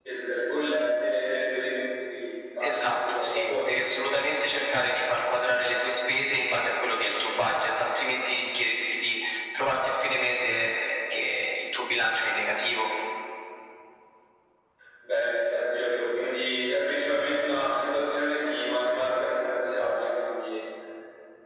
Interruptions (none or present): present